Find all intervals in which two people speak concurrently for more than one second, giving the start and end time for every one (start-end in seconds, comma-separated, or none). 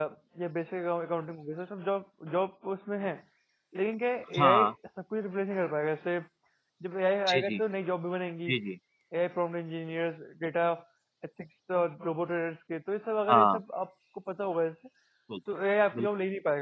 none